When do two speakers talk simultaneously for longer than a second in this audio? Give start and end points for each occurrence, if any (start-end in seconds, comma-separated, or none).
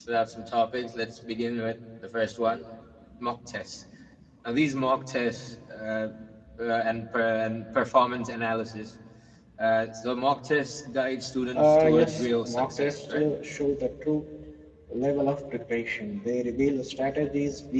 11.5-13.3